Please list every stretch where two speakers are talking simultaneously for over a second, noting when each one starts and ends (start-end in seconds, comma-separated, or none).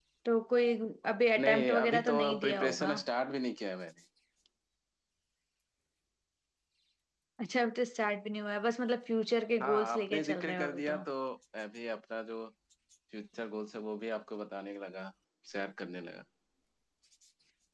1.4-2.9, 9.6-10.9